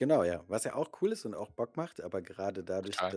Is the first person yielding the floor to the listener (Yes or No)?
No